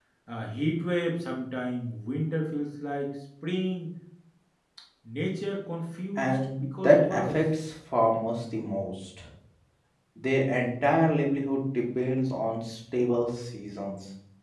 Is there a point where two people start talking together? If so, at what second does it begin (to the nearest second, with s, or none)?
6 s